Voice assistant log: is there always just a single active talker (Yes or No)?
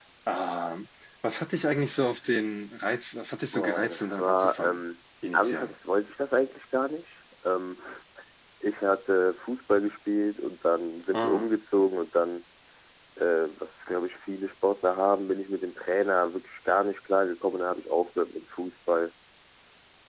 No